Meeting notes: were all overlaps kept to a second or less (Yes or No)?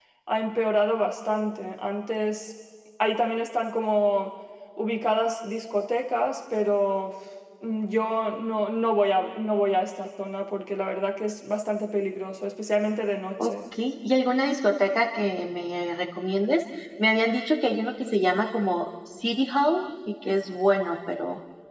Yes